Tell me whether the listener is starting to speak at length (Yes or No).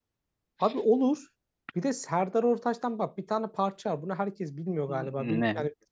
No